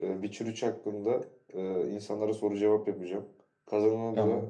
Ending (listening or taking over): listening